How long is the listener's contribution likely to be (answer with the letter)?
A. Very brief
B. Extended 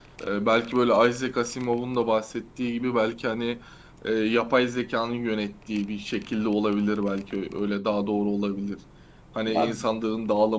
A